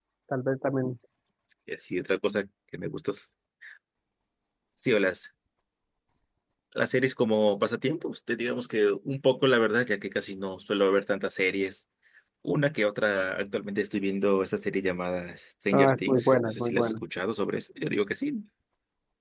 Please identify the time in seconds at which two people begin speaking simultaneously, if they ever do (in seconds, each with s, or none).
15.7 s